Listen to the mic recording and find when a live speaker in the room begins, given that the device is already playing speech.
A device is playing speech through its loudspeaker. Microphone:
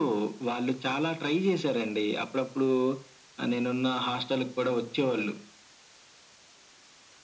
none

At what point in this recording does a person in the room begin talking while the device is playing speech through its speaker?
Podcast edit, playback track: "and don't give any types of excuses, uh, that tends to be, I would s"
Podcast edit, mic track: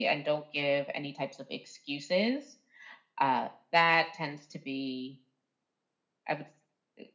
none

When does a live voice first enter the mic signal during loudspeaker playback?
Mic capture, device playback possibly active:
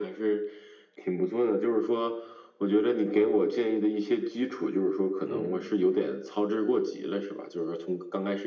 5.2 s

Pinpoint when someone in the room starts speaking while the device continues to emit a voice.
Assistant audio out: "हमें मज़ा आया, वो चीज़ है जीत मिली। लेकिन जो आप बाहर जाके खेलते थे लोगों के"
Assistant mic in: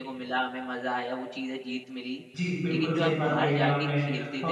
2.4 s

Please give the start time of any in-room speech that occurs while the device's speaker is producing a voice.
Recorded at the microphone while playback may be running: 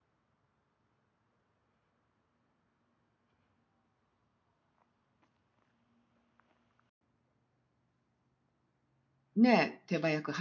9.4 s

